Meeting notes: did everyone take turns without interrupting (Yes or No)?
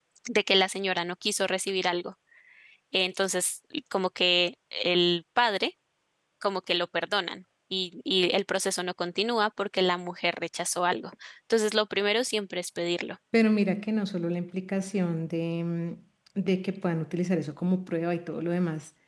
Yes